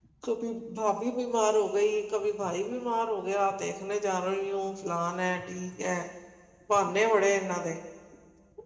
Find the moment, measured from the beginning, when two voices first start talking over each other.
none

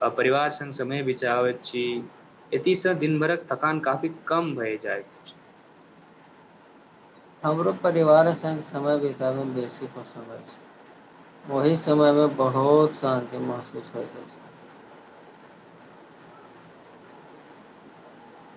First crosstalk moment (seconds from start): none

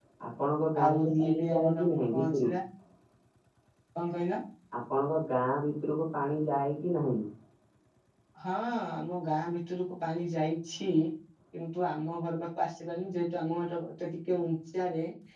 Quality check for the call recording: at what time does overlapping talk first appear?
0.8 s

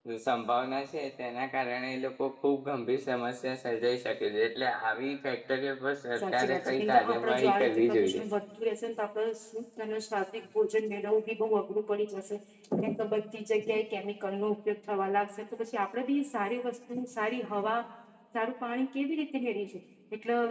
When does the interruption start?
6.2 s

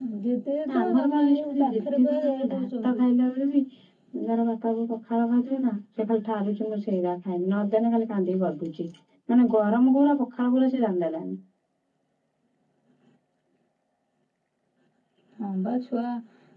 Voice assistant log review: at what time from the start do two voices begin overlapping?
0.7 s

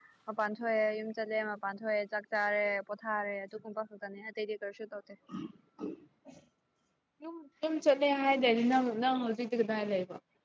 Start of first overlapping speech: none

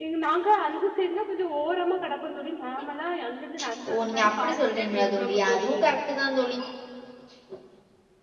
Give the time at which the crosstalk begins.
3.9 s

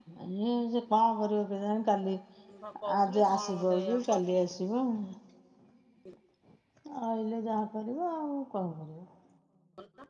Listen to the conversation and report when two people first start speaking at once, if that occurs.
3.1 s

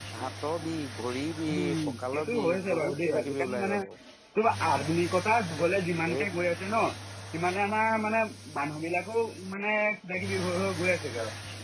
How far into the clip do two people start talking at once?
1.5 s

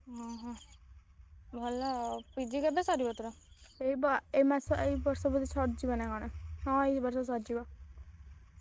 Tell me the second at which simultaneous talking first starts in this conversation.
none

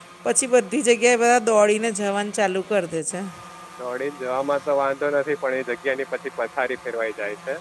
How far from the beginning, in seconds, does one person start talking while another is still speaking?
none

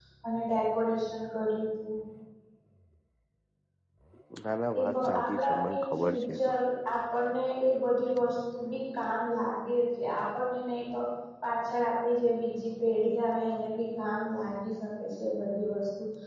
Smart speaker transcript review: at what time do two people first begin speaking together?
4.8 s

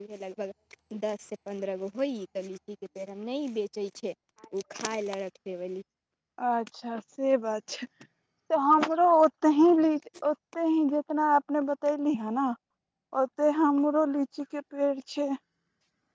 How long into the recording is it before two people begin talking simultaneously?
none

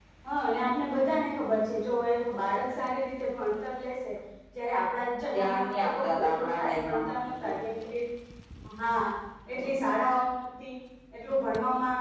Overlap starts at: 5.3 s

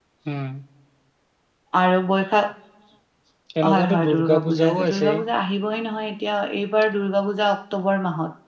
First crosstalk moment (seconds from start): 3.7 s

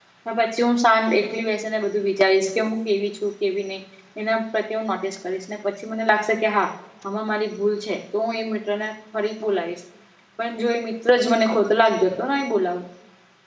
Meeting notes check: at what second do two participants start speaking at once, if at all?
none

